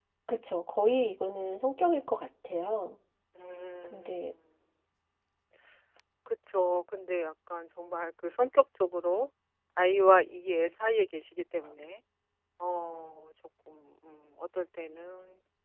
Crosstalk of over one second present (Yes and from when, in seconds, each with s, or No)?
No